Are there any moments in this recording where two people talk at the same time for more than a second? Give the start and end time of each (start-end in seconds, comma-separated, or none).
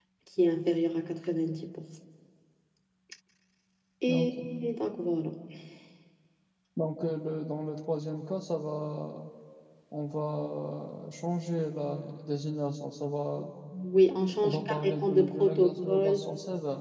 14.4-16.2